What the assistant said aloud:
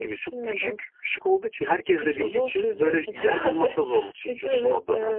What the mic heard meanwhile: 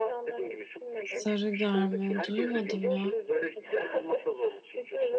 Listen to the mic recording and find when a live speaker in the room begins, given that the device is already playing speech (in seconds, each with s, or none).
1.0 s